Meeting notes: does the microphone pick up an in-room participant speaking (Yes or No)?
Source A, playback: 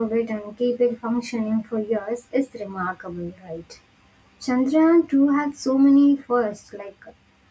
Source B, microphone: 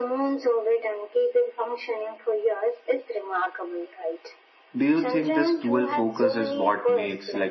Yes